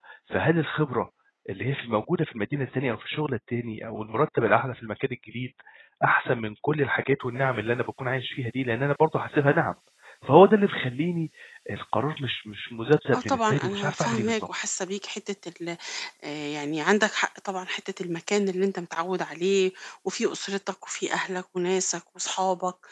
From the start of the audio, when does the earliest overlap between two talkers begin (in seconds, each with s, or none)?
13.1 s